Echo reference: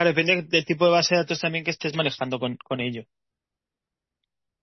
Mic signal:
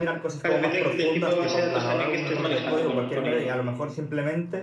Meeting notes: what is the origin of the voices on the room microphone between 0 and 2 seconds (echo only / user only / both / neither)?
both